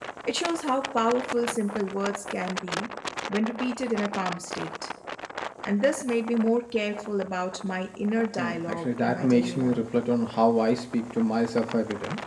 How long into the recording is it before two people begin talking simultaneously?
8.4 s

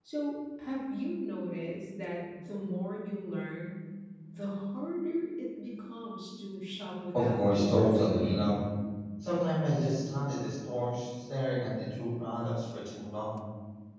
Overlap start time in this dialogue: 7.1 s

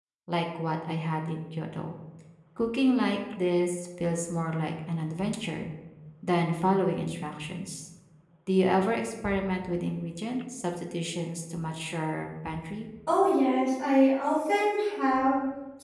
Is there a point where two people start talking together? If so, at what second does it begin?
none

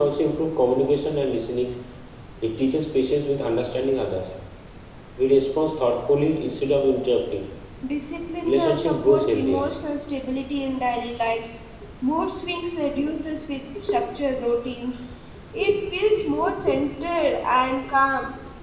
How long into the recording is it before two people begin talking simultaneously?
8.4 s

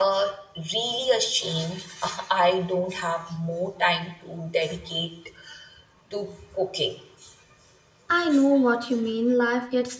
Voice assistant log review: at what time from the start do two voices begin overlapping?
none

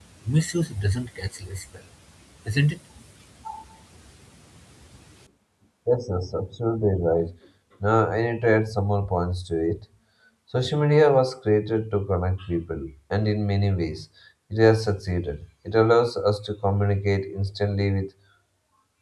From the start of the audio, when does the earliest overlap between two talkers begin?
none

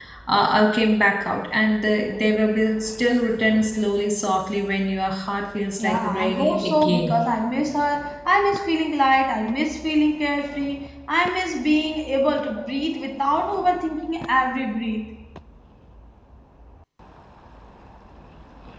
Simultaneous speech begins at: 5.8 s

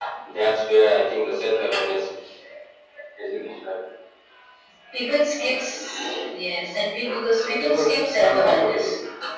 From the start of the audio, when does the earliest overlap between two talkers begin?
7.4 s

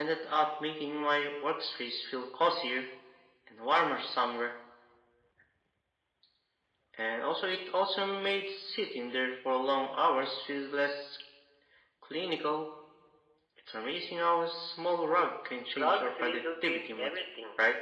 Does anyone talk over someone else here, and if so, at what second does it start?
15.8 s

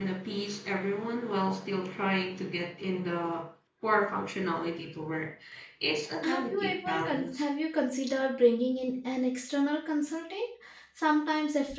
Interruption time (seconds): 6.2 s

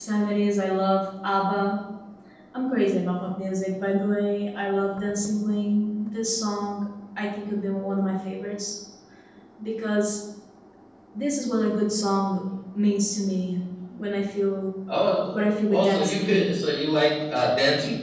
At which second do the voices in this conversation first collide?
15.3 s

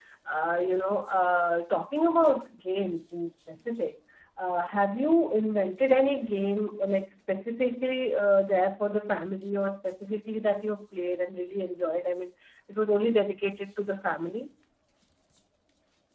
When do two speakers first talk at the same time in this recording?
none

